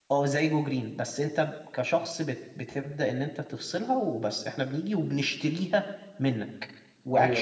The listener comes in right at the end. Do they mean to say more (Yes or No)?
No